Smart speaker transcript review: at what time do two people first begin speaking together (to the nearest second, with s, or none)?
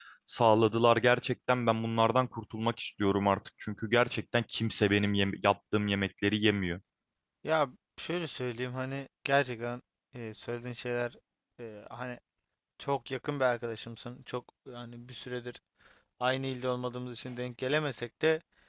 none